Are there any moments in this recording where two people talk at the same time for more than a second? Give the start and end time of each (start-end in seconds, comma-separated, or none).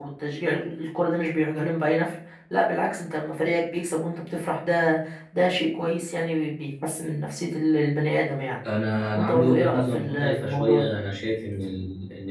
9.2-10.8